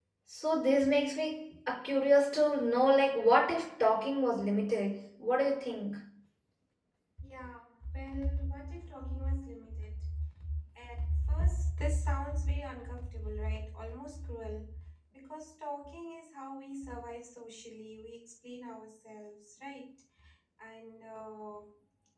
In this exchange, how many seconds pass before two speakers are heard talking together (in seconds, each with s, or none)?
none